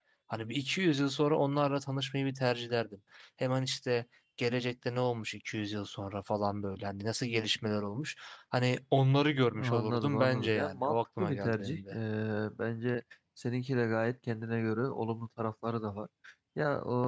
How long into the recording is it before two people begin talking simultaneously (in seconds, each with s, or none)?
9.5 s